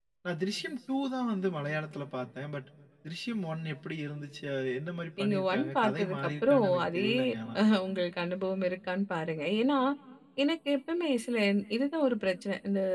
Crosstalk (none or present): present